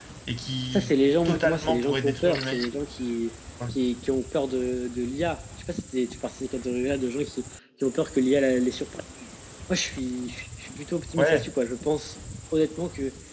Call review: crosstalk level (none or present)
present